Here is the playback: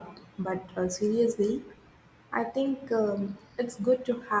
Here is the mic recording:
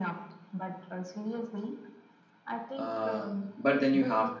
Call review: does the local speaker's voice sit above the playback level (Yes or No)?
Yes